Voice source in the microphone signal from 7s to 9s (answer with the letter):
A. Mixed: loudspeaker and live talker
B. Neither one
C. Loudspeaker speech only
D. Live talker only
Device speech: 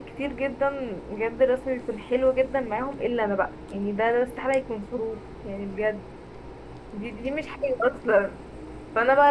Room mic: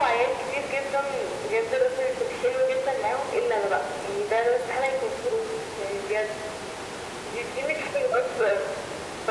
C